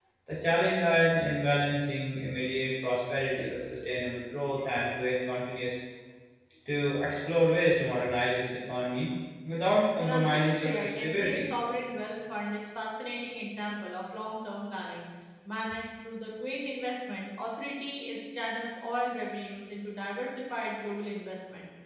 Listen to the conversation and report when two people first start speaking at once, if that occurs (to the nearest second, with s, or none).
10 s